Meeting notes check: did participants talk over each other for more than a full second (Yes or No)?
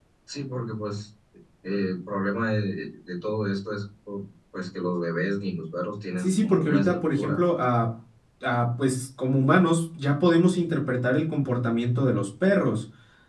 Yes